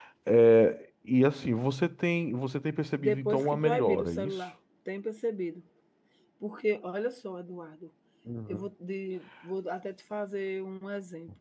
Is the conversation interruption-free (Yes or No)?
No